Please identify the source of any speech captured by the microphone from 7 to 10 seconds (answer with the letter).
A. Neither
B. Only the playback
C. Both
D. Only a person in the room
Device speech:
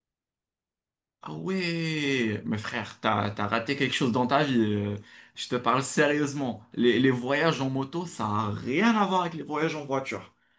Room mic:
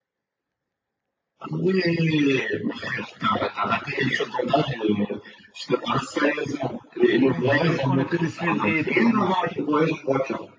C